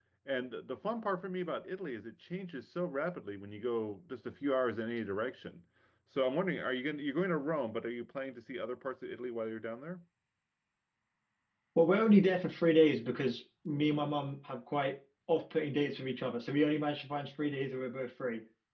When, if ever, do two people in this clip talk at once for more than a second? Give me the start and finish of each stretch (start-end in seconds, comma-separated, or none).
none